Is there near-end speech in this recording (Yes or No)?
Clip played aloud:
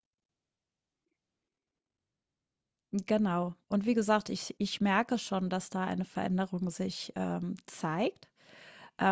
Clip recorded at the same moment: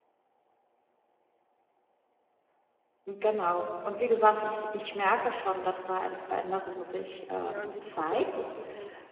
Yes